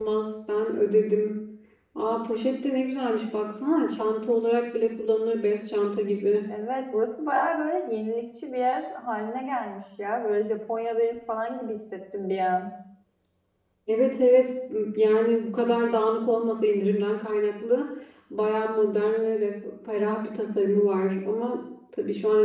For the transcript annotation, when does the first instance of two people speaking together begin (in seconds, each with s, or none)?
none